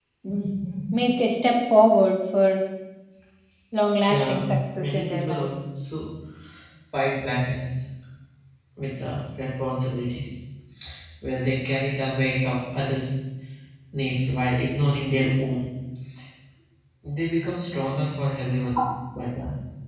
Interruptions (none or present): present